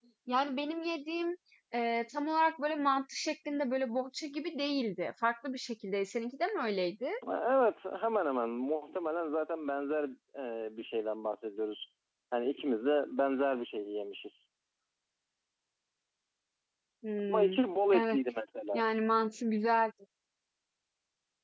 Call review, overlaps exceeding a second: none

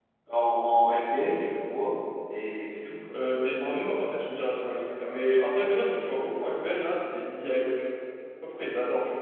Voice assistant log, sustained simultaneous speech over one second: none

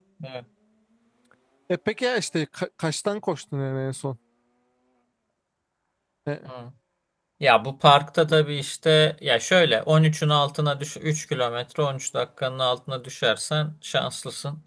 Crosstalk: none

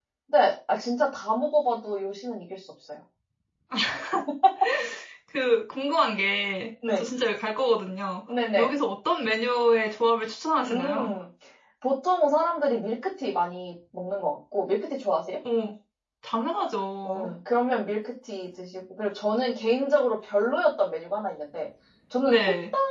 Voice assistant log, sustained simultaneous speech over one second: none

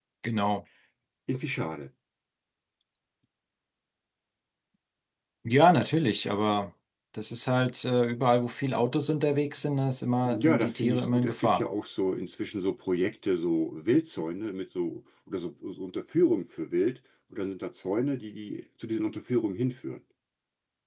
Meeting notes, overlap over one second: present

